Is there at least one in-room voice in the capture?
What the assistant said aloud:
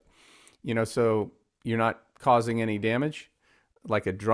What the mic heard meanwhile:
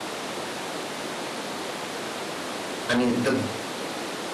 Yes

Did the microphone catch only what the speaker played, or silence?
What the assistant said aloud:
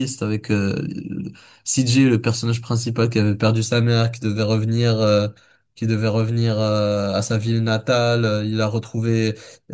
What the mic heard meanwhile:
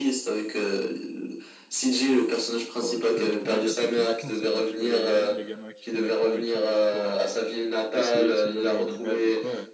No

